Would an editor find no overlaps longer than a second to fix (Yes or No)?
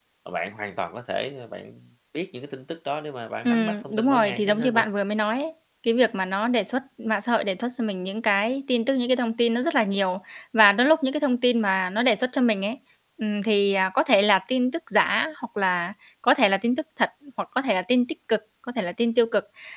No